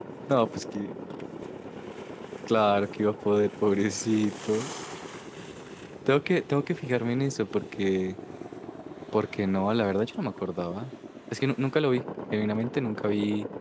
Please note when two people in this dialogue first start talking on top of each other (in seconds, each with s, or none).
none